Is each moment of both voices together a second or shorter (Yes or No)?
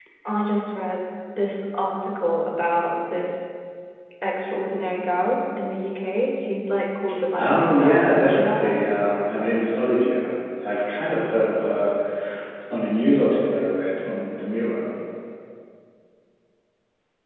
No